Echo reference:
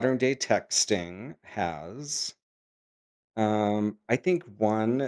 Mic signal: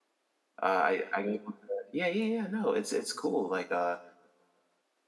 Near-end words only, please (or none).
Uh, I I'm able to Yeah, yeah, yeah, no, it's it's cool, like, uh,